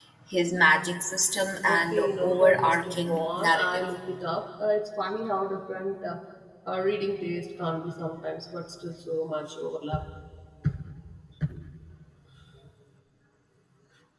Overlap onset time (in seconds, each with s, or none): 1.6 s